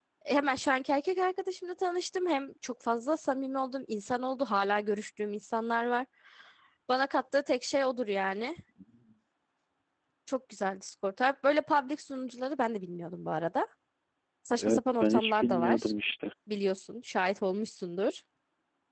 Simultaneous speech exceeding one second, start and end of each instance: 14.6-15.9

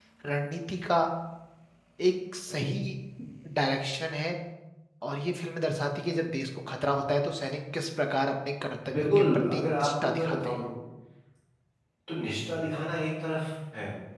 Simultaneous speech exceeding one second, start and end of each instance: 8.9-10.6

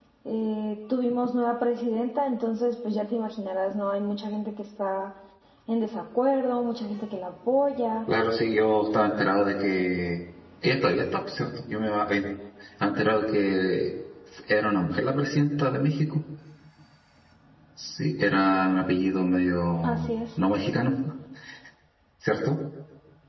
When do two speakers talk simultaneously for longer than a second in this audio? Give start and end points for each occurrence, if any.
none

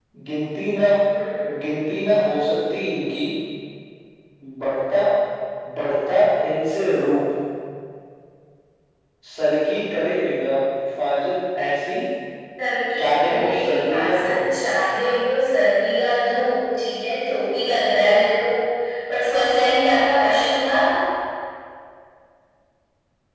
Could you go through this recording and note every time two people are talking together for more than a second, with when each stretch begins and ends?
13.0-14.4

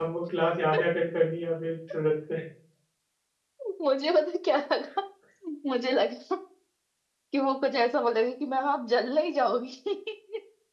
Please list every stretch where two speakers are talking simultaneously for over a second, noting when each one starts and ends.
none

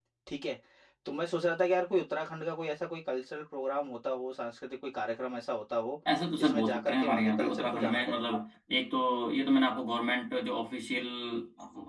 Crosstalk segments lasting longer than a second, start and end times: 6.4-8.2

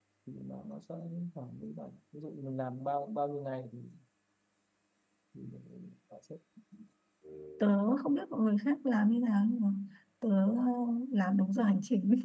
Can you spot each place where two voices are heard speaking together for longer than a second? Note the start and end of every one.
none

